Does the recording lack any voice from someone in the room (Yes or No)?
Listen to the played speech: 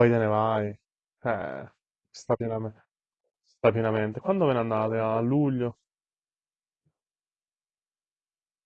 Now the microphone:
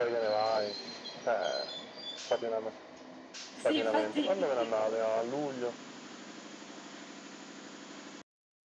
No